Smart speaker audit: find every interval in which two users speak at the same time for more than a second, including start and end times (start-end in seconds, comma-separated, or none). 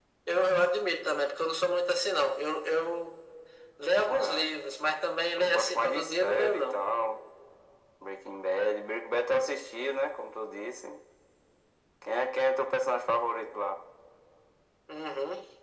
5.4-6.8